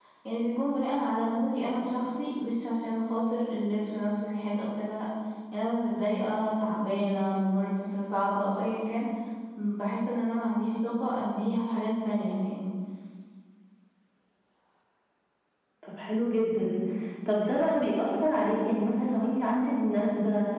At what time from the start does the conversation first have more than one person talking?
none

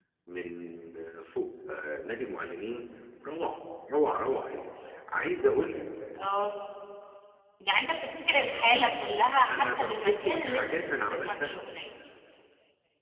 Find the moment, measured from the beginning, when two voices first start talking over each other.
9.4 s

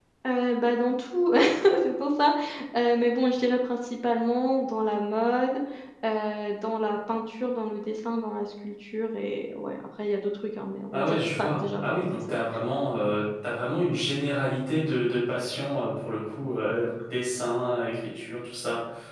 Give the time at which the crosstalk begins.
10.9 s

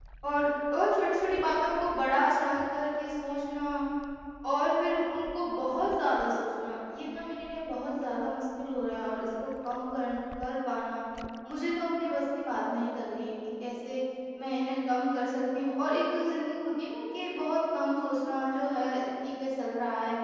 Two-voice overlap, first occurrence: none

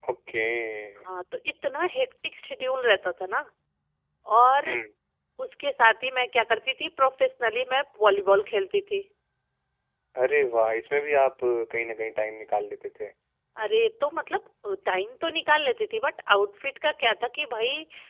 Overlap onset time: none

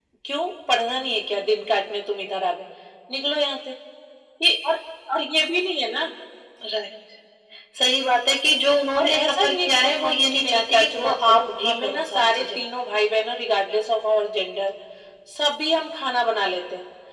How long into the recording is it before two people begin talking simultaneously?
8.9 s

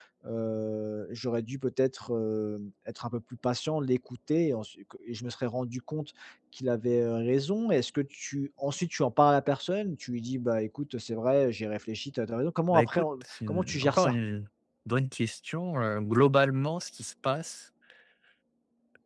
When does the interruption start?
12.7 s

